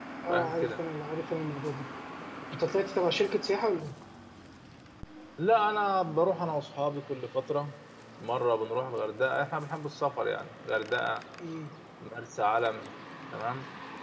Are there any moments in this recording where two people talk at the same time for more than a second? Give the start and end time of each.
none

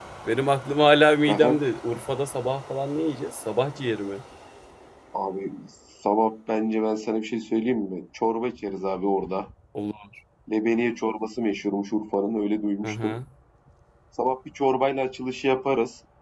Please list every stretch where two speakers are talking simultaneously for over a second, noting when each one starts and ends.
none

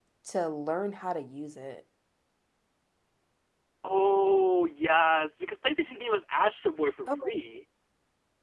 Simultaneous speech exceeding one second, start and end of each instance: none

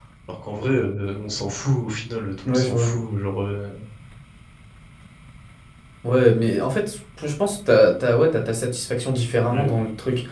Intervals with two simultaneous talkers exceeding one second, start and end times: none

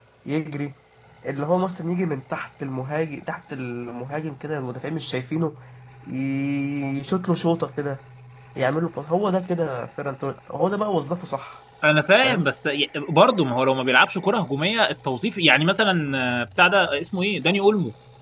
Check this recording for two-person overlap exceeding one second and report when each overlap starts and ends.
none

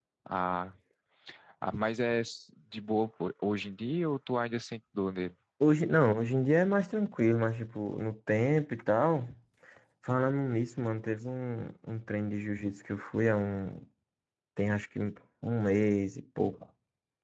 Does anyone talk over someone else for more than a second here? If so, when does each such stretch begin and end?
none

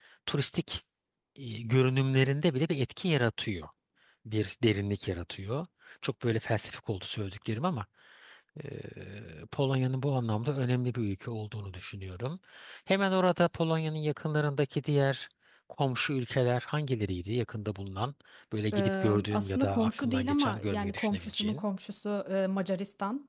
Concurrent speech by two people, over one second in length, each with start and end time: 18.7-21.6

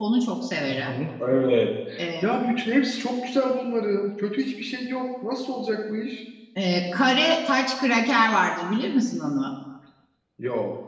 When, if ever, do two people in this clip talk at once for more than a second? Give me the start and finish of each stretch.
none

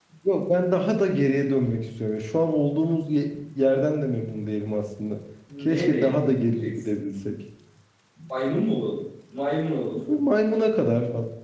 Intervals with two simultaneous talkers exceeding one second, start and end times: 5.6-7.0

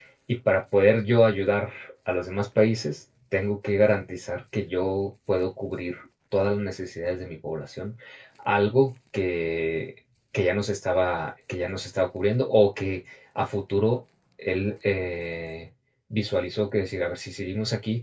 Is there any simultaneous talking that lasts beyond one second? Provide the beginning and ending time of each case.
none

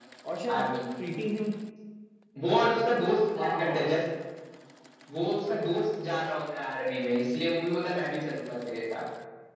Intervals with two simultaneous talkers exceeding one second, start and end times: none

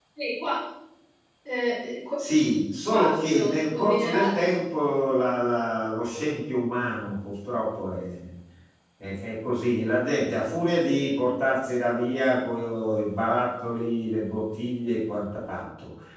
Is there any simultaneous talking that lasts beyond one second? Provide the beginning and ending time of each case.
2.9-4.5

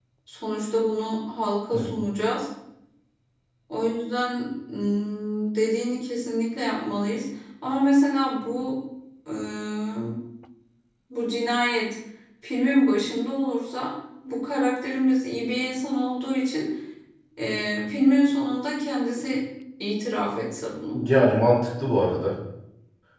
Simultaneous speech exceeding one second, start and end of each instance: none

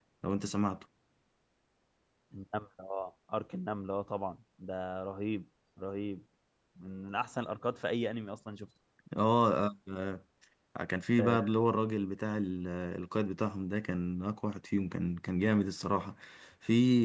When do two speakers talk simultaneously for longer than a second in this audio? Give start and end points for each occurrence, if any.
none

